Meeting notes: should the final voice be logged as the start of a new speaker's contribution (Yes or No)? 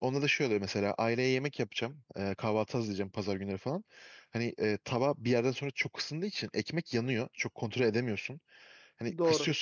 No